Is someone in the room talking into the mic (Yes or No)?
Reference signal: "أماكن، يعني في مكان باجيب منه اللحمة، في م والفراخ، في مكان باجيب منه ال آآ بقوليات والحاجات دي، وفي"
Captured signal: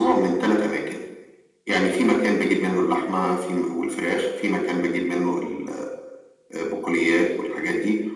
No